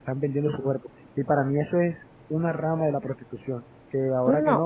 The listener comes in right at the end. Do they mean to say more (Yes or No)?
No